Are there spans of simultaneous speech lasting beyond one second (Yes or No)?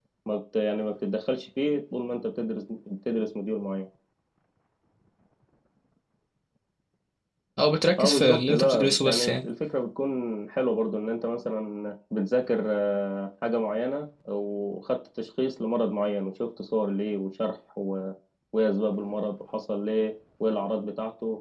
Yes